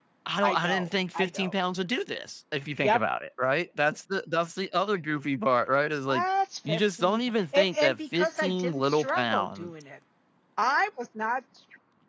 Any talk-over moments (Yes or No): Yes